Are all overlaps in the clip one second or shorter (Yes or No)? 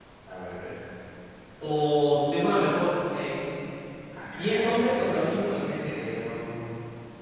No